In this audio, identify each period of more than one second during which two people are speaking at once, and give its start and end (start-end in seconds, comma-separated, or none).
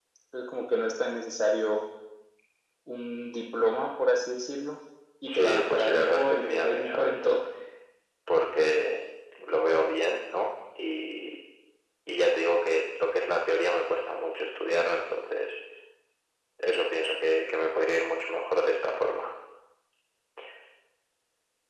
5.2-7.4